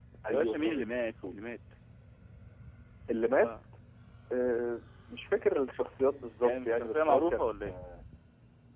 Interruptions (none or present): present